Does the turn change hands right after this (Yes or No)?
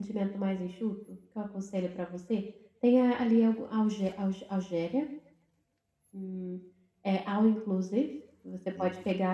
No